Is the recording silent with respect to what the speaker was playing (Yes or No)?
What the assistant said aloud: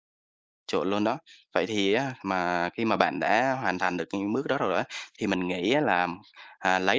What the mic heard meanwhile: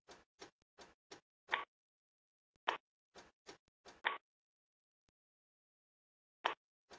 Yes